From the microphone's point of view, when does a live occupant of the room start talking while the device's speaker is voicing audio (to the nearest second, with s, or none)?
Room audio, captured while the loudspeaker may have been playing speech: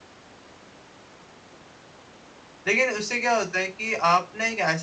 3 s